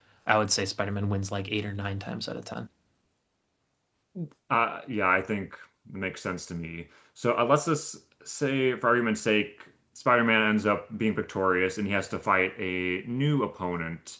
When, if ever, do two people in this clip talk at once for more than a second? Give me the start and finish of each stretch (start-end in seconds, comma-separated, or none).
none